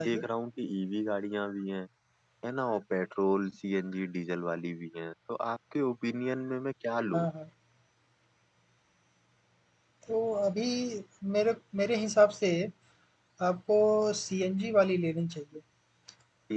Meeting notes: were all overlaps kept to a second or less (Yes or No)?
Yes